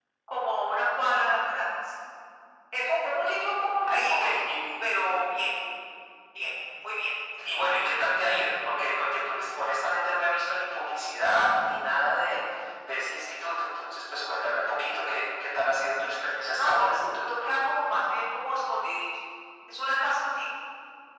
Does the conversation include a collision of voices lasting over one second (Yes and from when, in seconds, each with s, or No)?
No